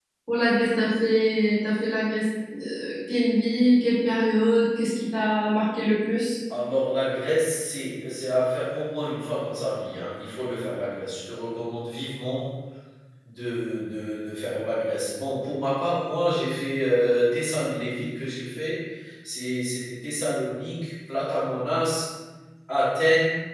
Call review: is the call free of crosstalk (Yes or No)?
Yes